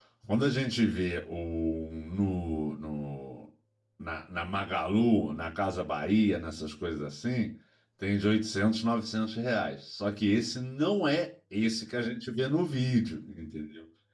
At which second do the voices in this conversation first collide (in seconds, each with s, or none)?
none